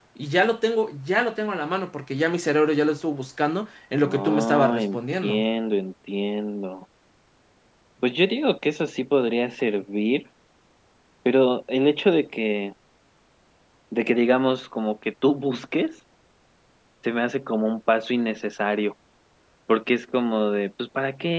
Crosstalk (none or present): present